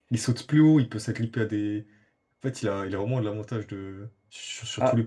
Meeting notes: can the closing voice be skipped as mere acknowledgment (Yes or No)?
Yes